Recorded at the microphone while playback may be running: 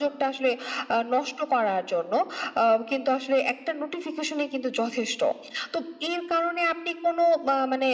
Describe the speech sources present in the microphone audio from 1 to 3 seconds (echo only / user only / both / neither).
echo only